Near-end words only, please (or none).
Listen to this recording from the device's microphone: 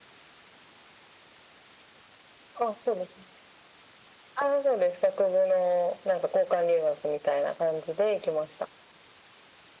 none